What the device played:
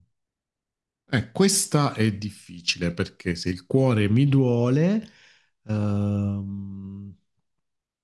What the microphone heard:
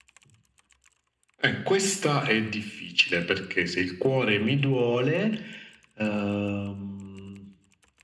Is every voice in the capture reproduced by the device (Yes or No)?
Yes